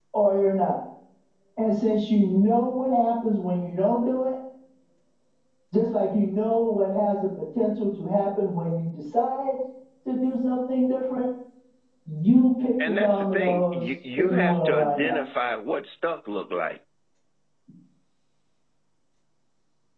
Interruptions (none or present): present